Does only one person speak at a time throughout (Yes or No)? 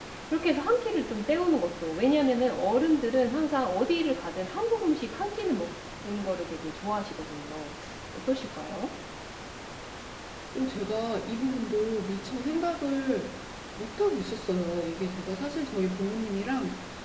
Yes